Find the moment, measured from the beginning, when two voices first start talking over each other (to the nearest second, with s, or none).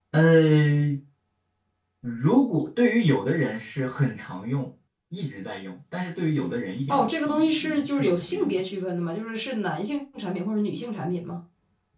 7 s